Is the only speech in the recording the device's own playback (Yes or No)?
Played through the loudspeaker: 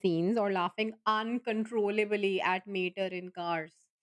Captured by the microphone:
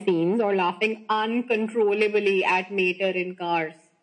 Yes